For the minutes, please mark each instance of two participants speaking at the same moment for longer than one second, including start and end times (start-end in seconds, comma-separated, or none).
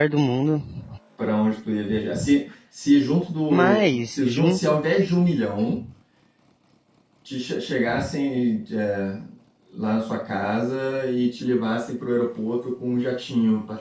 3.5-4.8